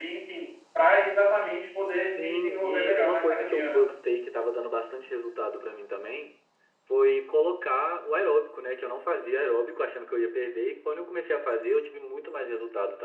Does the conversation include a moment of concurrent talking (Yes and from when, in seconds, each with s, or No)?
Yes, from 2.1 s